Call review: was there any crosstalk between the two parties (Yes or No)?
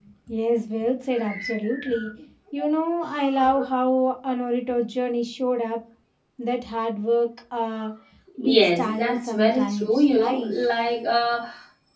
Yes